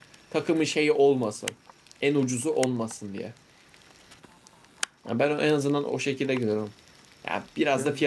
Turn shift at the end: No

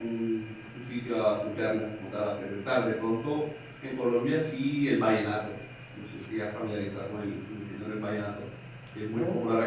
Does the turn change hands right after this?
No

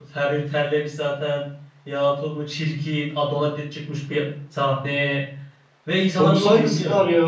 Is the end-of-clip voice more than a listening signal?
Yes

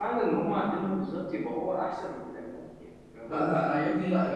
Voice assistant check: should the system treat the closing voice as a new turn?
Yes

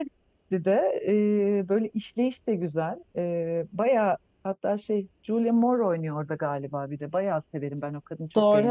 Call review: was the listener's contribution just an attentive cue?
No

